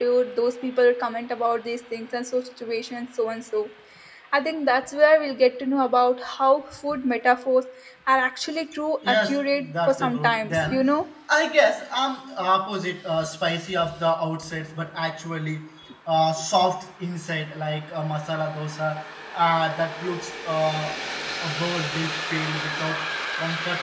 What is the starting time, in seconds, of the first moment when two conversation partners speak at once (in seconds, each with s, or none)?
9.0 s